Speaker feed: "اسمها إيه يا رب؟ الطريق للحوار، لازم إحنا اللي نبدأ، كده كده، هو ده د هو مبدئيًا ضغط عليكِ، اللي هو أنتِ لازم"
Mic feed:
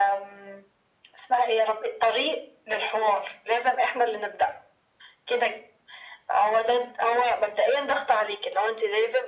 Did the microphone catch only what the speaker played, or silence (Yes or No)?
Yes